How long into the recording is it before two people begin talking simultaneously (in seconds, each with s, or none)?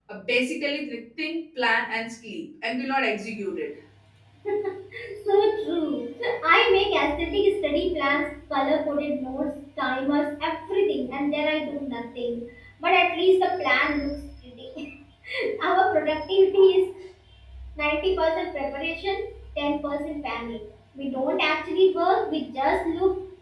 none